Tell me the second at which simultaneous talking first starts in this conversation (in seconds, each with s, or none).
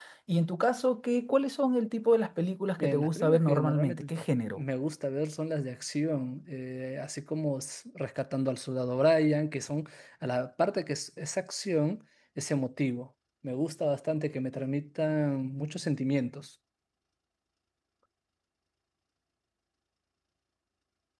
2.8 s